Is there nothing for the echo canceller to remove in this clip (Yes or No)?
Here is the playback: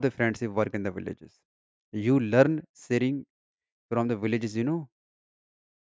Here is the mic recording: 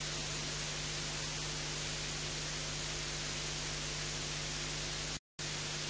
Yes